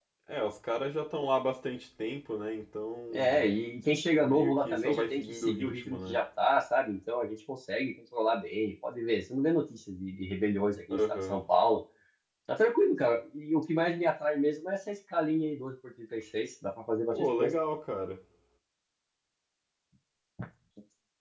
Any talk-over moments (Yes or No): Yes